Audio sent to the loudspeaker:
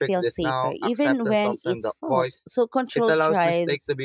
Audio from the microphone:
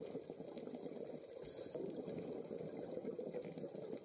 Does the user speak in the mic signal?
No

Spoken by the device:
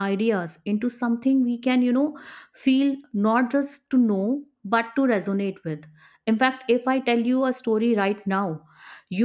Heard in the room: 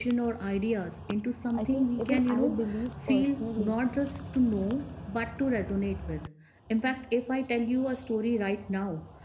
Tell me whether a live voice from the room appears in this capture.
Yes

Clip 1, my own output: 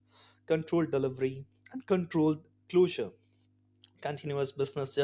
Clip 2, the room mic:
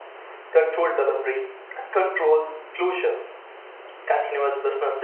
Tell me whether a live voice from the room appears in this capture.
No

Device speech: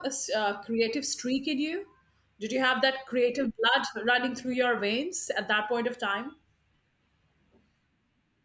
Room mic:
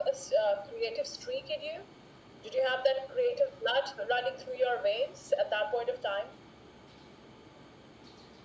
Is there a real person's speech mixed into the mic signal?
No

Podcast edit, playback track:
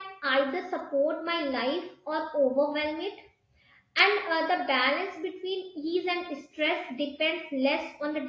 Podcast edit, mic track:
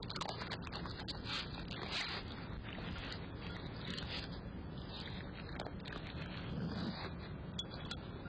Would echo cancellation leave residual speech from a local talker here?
No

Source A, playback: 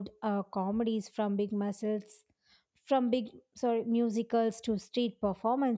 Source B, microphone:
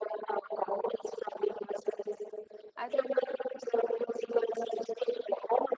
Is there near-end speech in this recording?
Yes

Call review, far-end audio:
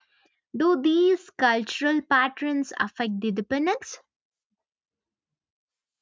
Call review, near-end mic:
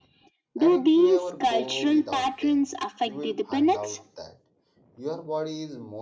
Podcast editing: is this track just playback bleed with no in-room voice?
No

